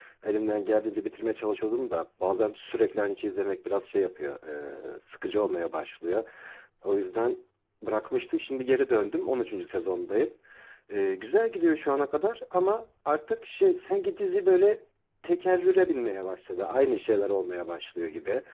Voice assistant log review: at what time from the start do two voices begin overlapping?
none

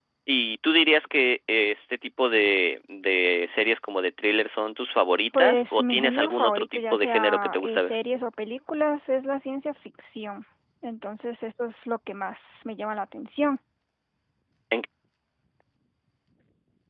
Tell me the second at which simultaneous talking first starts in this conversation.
5 s

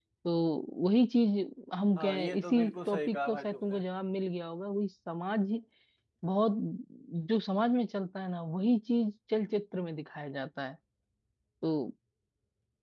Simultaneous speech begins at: 2 s

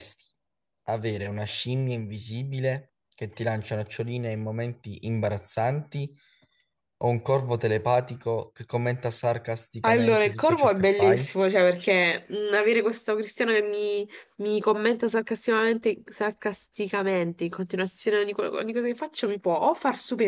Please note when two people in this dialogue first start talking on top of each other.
10 s

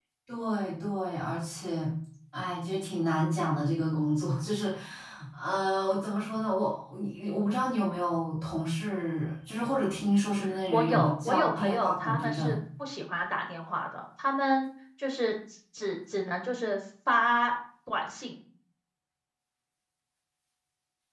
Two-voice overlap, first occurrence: 10 s

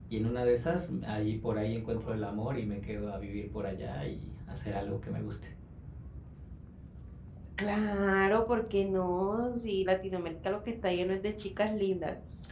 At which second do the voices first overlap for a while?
none

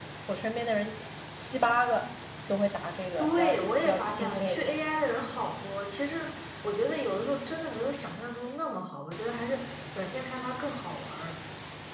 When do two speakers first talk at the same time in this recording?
3 s

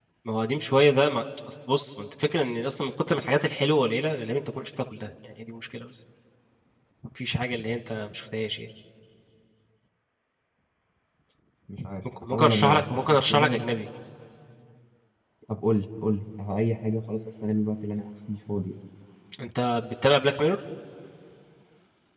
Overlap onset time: 12 s

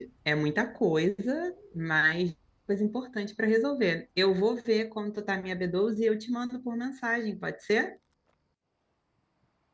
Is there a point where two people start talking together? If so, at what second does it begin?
none

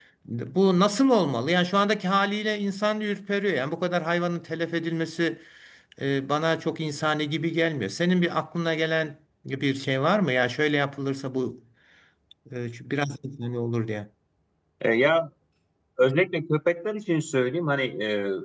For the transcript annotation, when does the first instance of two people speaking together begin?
none

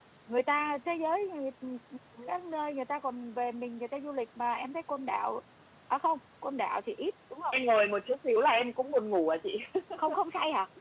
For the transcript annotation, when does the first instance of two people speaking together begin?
none

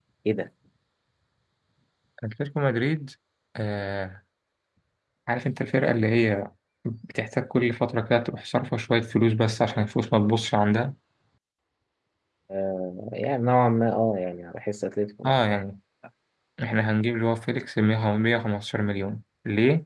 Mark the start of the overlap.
none

